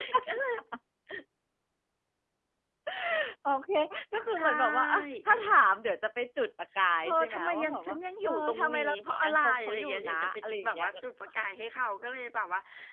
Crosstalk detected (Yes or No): Yes